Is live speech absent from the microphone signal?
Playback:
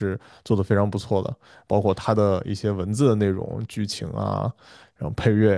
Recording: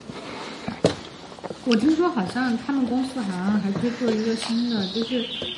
No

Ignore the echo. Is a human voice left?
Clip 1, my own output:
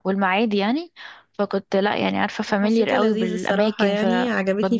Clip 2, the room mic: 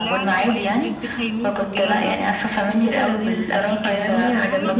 Yes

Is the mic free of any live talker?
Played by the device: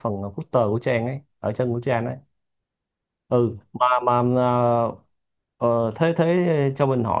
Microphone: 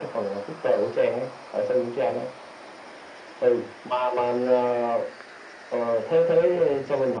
Yes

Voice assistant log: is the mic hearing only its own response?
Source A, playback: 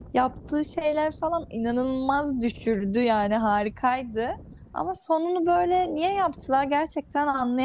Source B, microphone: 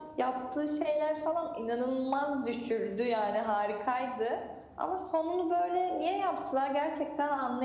Yes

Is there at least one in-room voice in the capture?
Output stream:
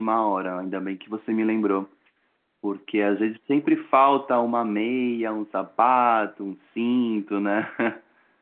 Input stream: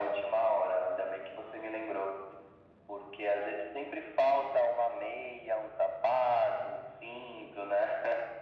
No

